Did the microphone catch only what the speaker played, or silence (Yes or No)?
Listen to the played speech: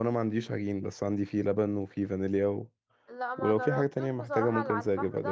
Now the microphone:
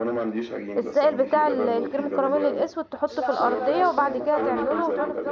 No